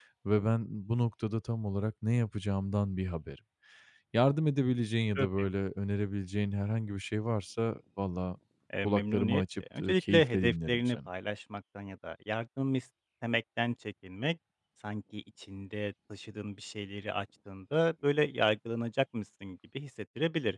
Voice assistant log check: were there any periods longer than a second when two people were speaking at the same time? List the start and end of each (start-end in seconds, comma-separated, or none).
8.8-11.0